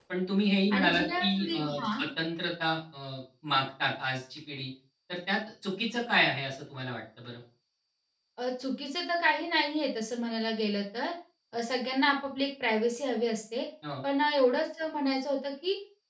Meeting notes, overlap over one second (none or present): present